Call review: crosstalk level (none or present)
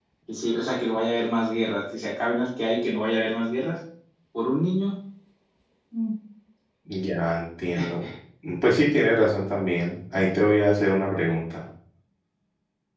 none